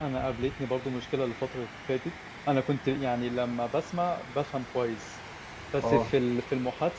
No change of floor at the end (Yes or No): Yes